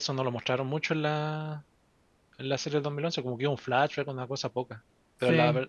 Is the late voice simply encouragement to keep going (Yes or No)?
Yes